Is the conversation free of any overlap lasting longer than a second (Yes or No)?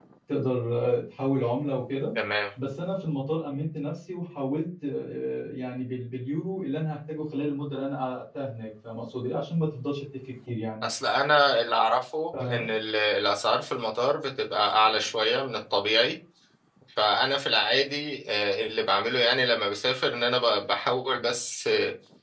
Yes